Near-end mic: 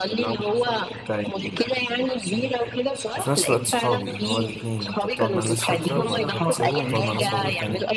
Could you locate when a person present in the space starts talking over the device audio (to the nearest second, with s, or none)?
3 s